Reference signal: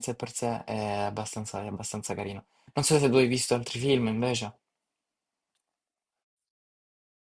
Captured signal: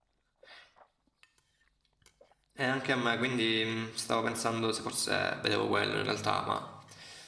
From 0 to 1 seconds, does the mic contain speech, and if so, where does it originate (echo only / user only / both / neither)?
neither